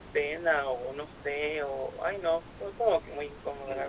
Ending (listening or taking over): taking over